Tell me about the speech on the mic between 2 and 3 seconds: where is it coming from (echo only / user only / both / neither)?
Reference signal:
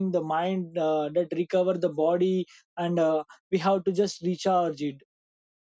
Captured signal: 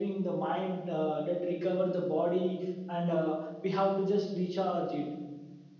echo only